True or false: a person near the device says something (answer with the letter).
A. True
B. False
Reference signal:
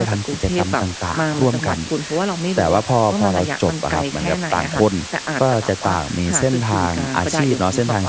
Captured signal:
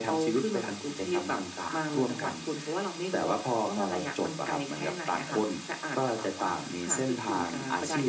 B